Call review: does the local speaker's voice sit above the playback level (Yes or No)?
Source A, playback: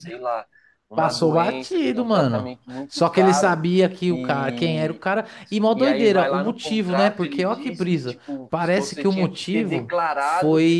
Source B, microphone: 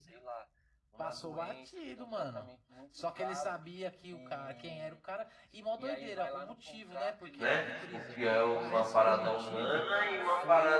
Yes